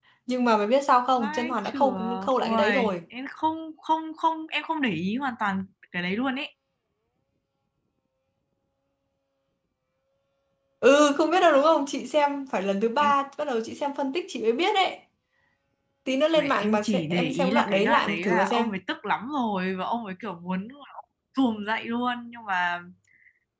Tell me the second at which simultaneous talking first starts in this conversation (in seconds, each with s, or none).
1.2 s